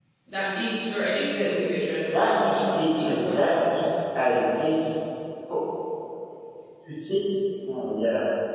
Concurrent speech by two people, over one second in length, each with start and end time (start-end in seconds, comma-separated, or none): 2.0-3.5